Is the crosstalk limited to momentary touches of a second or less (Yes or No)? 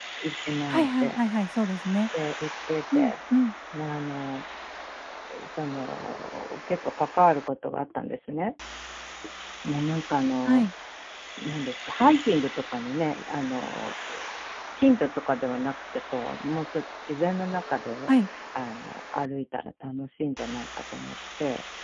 Yes